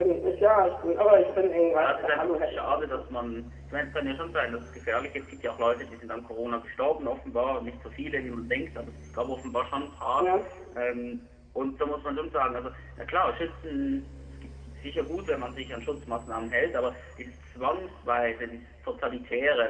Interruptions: present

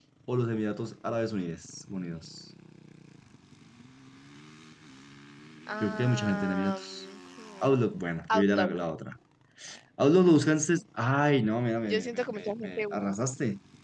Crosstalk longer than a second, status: present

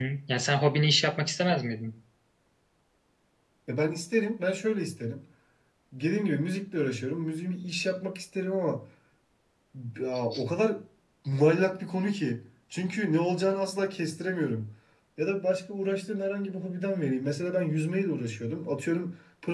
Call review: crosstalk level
none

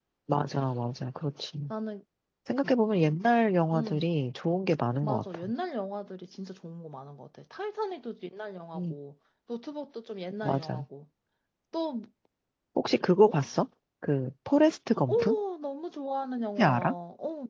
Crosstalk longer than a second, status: none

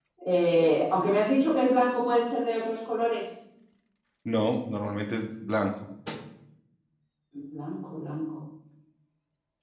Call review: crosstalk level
none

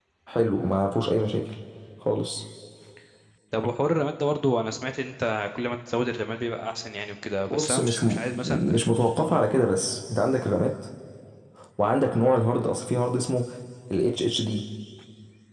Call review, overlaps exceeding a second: present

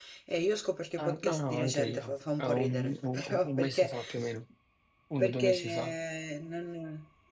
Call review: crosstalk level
present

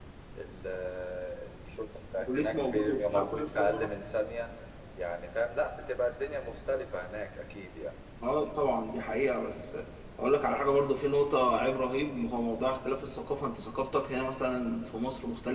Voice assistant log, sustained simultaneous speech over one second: present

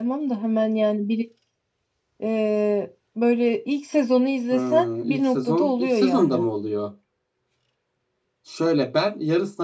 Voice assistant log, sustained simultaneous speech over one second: present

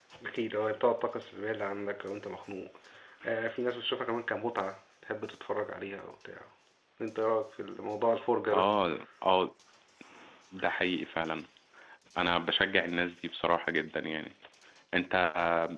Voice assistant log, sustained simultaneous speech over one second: none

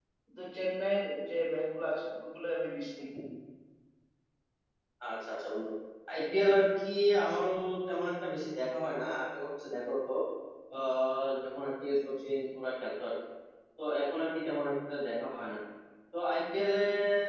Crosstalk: none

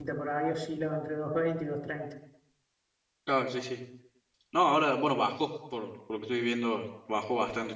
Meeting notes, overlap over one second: none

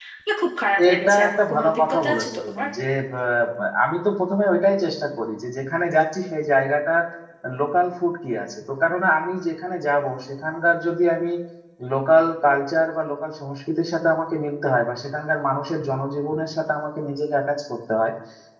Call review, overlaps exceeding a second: present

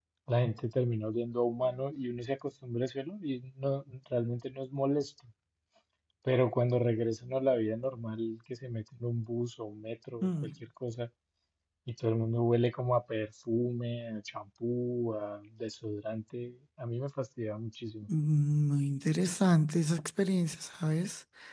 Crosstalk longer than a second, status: none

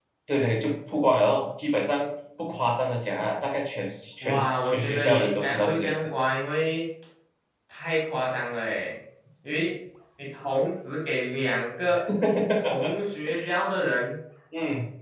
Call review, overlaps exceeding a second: present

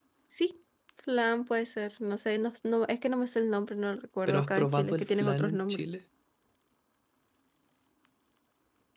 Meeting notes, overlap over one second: present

